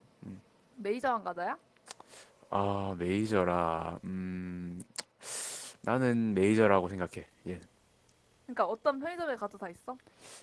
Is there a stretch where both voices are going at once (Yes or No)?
No